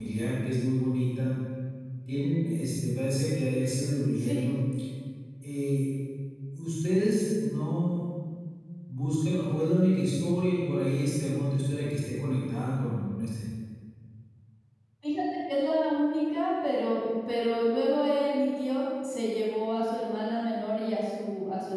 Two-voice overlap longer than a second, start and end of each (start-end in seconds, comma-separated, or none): none